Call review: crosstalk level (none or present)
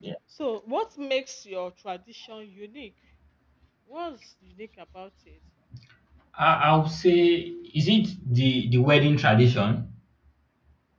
none